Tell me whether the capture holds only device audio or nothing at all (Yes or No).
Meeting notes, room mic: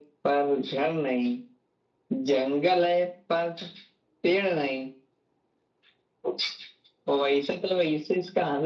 Yes